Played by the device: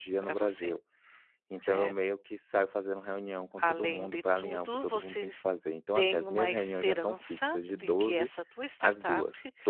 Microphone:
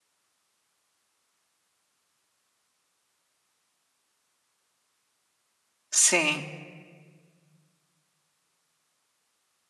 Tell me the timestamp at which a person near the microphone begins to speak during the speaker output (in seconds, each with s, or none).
5.9 s